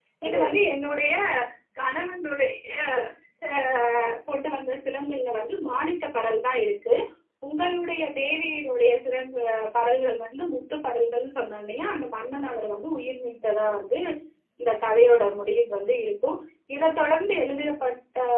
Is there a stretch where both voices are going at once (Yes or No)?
No